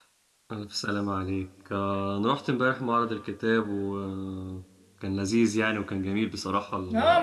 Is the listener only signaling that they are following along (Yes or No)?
No